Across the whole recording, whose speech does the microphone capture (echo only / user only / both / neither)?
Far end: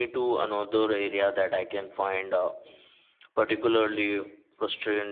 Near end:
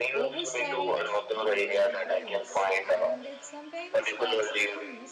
both